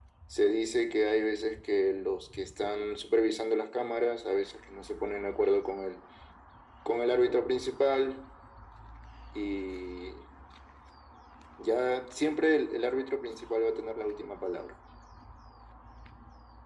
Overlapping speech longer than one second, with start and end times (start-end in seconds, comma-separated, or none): none